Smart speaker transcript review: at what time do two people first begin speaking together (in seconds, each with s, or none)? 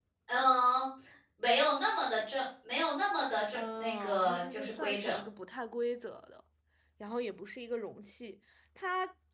3.5 s